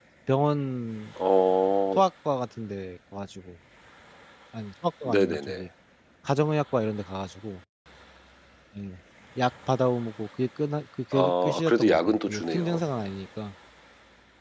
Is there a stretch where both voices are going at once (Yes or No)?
Yes